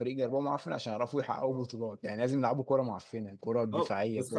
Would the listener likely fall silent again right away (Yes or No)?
No